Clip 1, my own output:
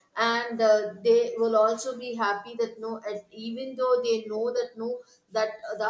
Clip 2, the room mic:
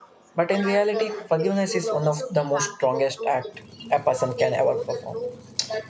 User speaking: Yes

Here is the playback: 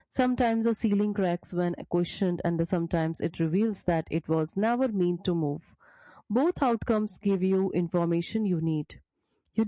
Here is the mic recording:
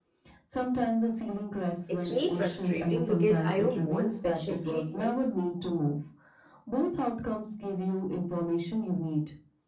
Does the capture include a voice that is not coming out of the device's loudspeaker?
Yes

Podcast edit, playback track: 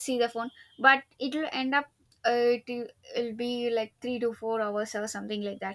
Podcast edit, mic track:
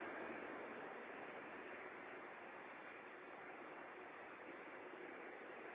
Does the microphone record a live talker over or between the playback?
No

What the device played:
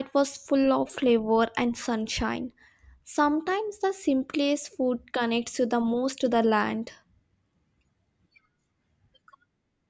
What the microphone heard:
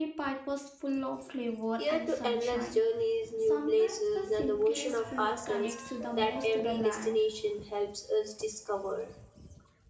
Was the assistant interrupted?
Yes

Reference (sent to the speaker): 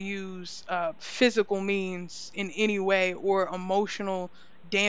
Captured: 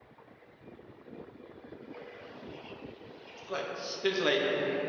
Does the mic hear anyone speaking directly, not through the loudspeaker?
Yes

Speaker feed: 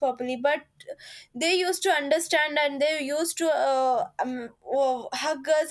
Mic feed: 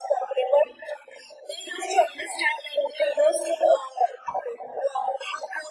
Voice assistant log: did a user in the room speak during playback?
No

